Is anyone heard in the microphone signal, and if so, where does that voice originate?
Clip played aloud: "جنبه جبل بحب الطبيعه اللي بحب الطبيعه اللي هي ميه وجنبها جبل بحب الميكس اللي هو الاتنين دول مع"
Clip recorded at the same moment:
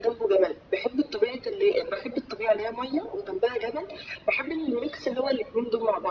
echo only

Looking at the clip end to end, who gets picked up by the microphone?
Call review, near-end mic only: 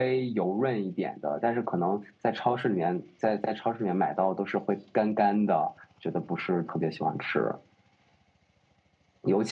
echo only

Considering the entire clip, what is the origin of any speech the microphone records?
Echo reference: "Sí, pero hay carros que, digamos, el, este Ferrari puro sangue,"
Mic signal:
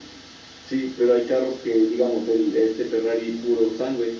echo only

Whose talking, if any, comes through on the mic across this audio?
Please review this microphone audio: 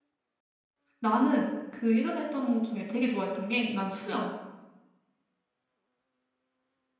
user only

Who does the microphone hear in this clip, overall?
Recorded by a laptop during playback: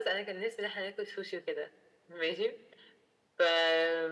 echo only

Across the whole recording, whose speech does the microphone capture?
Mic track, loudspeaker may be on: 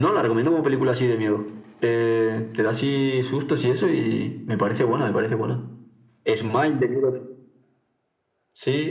echo only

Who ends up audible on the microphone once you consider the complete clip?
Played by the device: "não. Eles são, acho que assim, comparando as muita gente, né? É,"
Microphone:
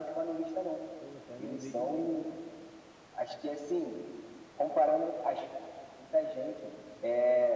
both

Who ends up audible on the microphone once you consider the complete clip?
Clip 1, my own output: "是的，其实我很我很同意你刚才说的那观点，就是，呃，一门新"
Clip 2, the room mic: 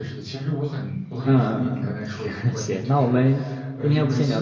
both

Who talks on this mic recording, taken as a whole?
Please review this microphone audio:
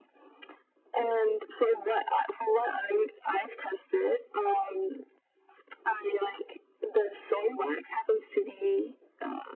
echo only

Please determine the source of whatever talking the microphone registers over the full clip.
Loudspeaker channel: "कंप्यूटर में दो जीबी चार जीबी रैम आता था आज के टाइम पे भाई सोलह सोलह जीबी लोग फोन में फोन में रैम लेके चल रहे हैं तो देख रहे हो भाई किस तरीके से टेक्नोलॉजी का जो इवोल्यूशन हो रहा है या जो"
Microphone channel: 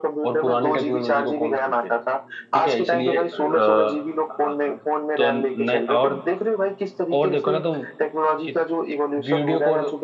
both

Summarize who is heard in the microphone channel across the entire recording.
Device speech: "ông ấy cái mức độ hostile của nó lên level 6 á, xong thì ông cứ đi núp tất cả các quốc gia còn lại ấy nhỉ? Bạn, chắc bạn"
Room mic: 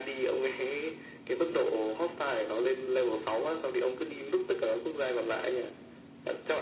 echo only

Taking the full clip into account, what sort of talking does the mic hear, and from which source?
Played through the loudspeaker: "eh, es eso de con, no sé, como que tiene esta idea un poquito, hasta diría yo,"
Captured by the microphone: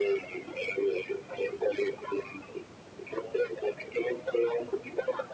echo only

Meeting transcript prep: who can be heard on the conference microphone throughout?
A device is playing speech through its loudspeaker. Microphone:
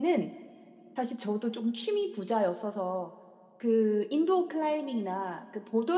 user only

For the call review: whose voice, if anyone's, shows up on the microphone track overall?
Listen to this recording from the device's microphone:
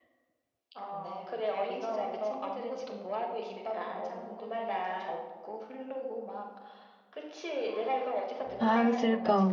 both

